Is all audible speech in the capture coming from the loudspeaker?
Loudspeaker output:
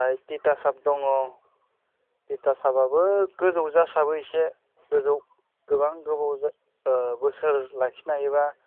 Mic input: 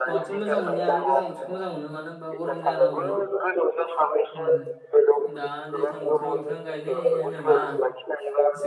No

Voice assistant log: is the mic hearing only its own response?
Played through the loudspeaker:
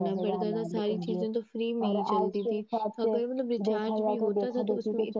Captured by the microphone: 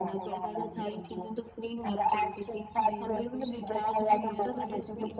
No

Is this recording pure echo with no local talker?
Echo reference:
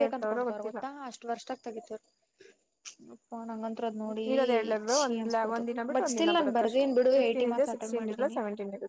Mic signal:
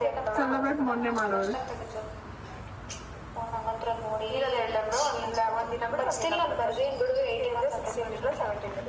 No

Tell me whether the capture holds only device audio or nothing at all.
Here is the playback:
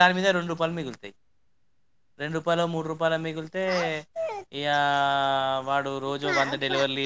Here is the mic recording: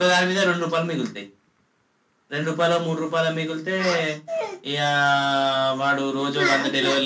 Yes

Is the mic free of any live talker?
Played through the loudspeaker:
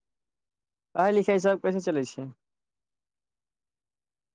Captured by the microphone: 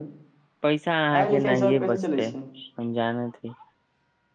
No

